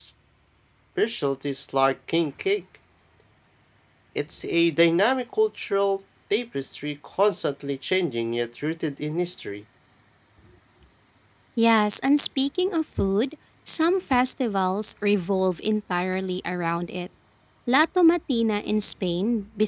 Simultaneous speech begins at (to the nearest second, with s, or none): none